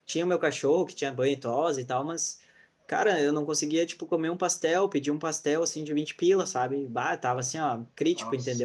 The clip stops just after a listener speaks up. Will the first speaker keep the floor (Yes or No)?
Yes